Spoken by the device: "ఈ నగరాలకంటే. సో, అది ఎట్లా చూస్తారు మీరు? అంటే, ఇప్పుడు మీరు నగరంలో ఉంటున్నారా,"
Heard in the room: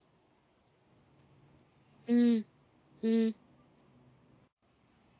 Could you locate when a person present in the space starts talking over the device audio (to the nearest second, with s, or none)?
2 s